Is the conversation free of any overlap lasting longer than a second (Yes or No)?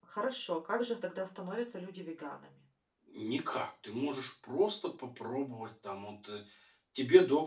Yes